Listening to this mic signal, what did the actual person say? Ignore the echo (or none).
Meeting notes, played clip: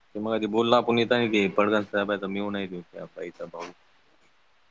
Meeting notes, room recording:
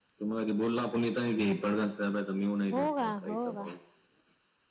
हो का हो का